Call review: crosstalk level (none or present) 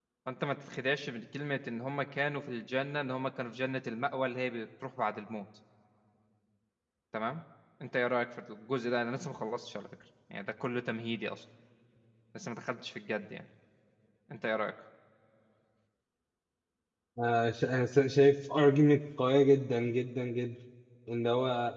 none